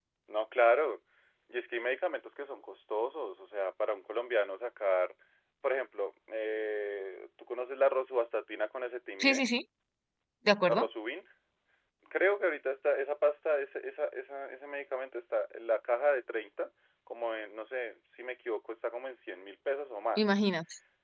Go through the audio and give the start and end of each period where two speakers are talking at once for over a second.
none

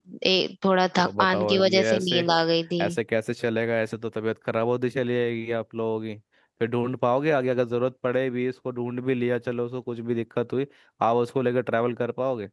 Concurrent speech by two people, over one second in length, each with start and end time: 1.0-2.3

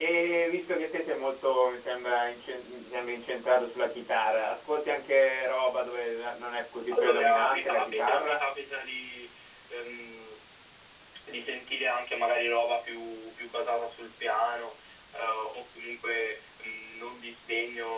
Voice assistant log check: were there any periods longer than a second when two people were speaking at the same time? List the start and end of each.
6.9-8.4

